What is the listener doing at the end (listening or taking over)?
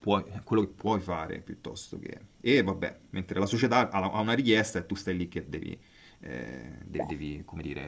listening